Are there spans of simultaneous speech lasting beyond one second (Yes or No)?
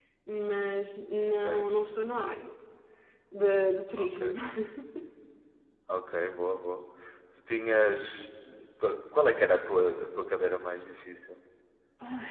No